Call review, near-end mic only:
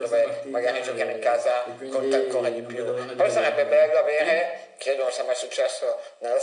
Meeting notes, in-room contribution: present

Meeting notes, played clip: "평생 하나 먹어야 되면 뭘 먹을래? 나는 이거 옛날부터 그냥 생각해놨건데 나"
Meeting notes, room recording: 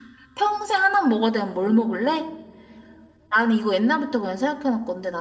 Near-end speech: none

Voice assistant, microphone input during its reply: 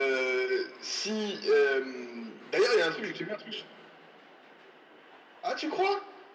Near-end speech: none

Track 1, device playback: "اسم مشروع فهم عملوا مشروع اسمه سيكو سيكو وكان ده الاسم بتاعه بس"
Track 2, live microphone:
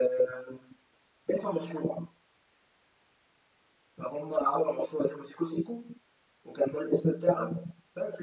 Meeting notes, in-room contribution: none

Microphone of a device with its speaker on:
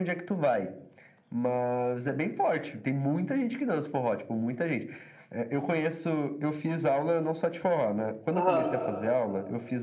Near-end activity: present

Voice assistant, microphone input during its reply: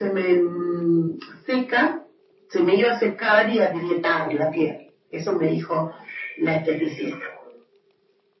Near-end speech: none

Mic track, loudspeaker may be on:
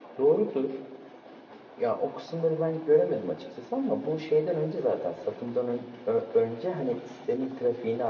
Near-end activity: present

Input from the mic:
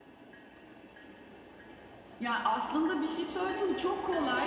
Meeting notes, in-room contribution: none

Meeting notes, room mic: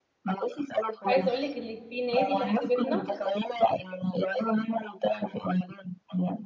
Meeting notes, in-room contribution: present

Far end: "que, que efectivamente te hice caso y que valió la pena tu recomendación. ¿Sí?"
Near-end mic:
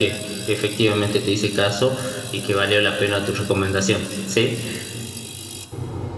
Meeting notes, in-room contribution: none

